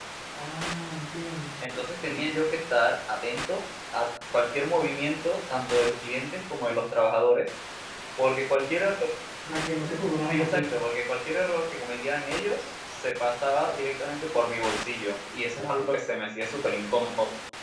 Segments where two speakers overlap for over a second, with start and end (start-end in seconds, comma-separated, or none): none